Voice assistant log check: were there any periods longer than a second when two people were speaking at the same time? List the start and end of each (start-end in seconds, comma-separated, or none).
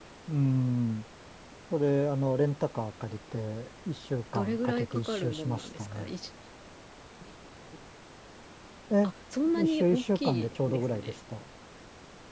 4.3-6.1, 9.6-11.1